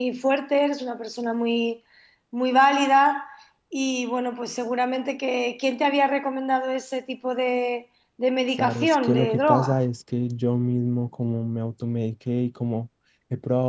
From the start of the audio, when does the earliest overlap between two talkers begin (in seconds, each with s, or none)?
8.6 s